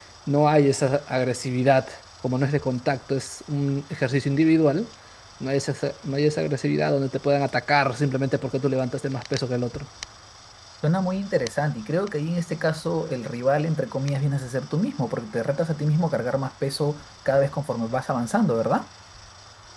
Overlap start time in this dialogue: none

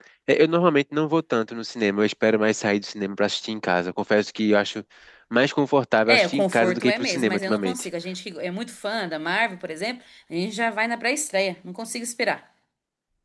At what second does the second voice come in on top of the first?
6.1 s

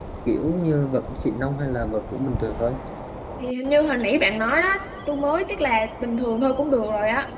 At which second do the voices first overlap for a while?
none

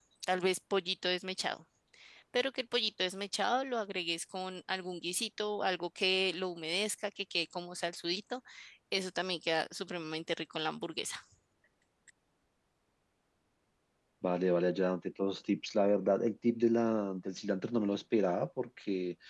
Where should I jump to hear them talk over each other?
none

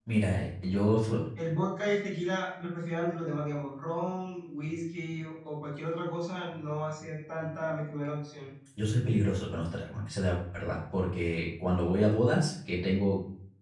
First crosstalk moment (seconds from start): none

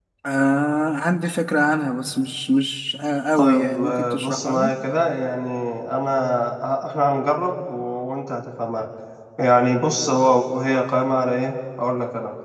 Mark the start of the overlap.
3.3 s

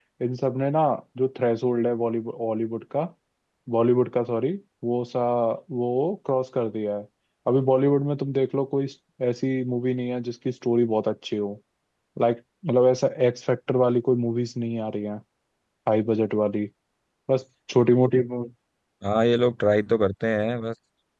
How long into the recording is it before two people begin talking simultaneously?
none

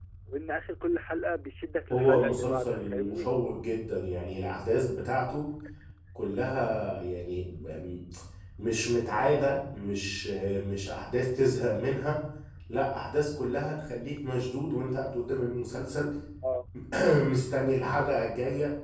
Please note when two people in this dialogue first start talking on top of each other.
1.9 s

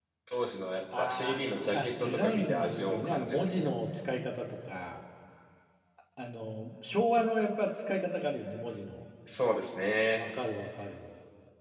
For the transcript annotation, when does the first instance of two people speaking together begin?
1.0 s

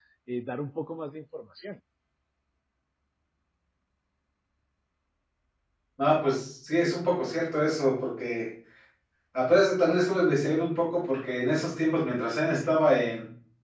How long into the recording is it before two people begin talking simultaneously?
none

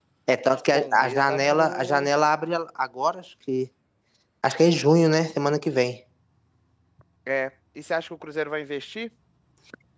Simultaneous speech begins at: 0.7 s

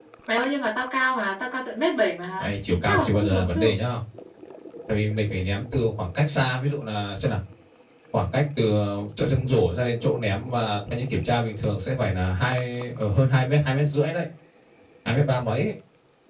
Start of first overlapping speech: 2.4 s

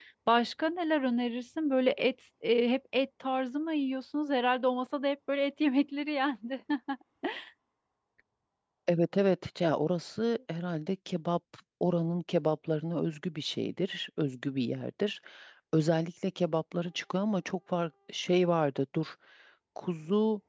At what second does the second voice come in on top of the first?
none

